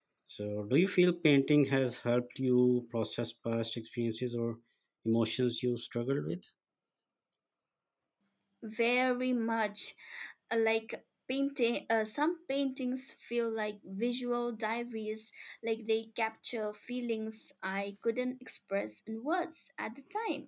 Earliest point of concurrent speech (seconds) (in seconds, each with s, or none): none